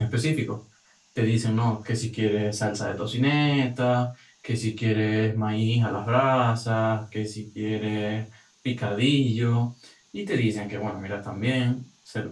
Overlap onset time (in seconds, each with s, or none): none